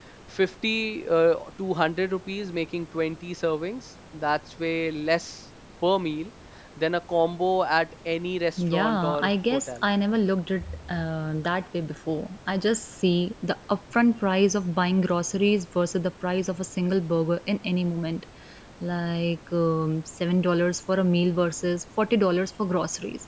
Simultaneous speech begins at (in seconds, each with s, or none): 8.6 s